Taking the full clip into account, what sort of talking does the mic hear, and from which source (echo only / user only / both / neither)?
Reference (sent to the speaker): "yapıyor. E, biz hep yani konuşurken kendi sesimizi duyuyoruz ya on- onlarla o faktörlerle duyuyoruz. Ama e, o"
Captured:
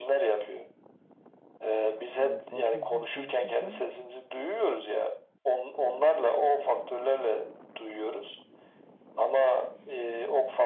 both